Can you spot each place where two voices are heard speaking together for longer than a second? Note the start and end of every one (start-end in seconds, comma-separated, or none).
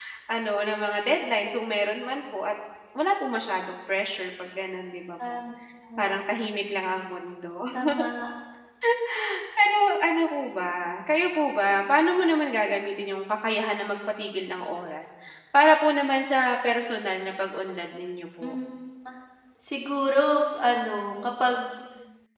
none